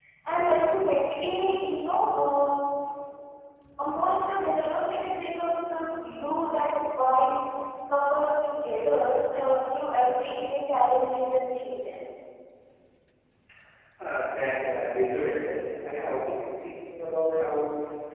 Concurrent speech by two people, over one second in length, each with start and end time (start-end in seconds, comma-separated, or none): none